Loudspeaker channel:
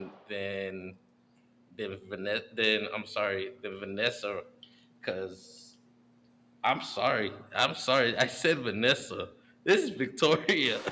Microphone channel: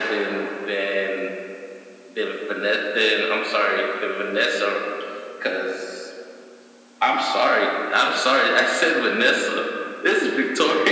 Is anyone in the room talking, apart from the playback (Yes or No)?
No